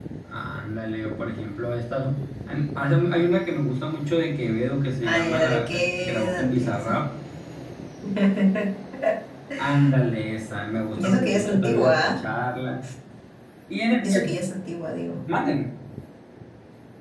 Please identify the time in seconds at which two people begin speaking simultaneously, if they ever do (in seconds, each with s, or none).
5.0 s